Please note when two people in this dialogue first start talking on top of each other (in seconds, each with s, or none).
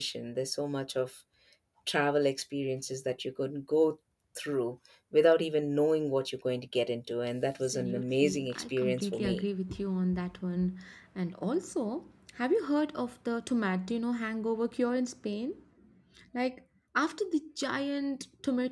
7.6 s